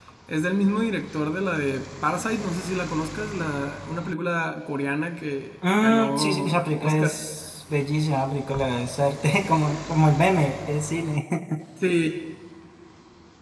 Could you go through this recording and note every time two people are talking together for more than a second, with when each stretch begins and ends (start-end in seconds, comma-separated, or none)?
5.8-7.2